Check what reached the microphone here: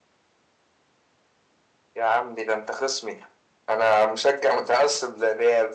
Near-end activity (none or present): none